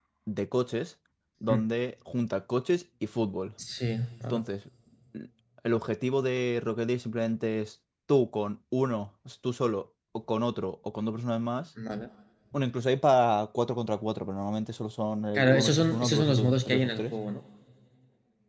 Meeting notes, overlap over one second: present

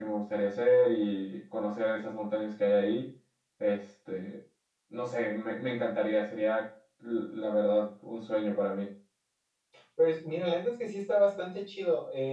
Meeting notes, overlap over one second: none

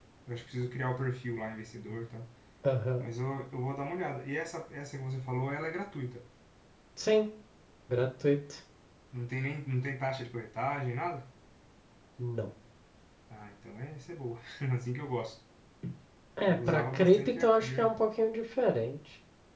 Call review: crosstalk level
present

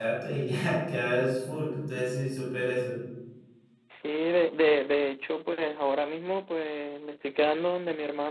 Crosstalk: none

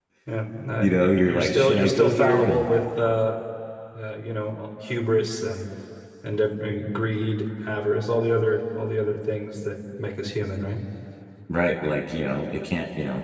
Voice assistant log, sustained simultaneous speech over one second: present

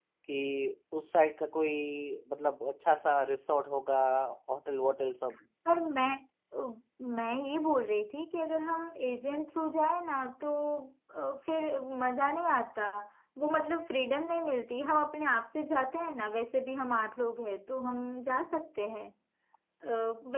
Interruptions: none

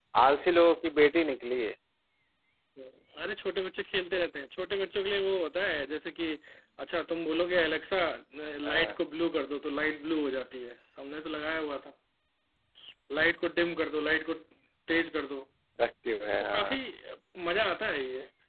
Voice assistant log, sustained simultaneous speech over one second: none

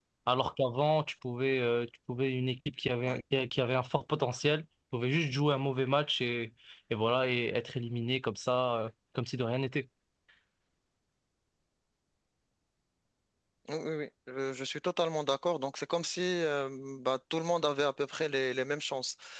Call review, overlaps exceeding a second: none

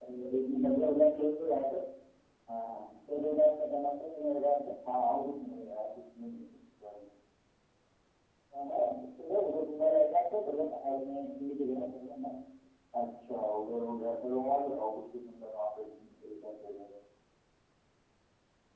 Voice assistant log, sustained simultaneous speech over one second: none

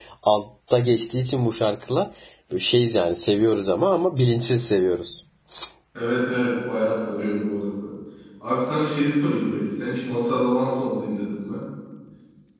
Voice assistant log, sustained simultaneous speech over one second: none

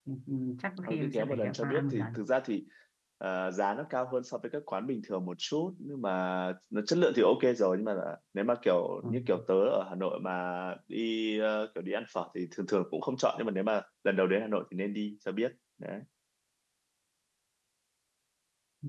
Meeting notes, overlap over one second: present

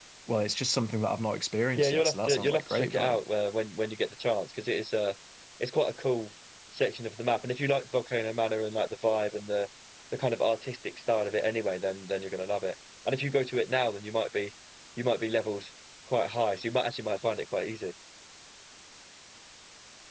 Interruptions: present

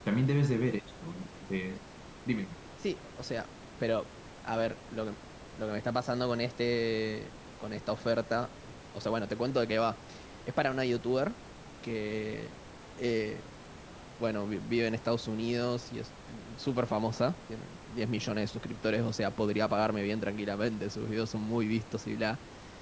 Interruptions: none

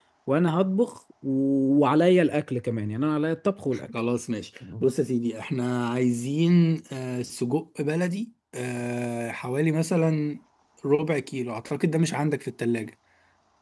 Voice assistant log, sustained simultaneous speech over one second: none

